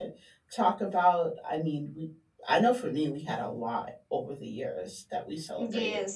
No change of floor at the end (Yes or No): No